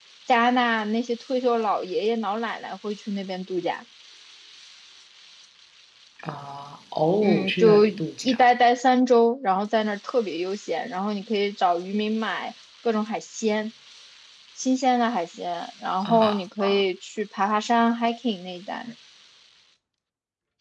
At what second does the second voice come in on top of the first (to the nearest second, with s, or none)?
7 s